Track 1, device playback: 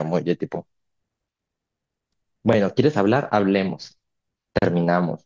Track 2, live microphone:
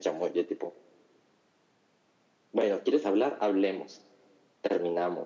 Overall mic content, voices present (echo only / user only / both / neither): echo only